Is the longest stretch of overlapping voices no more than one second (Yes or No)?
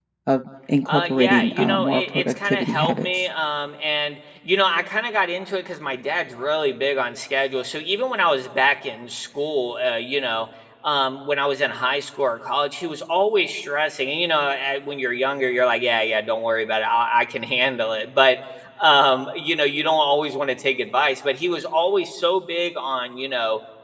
No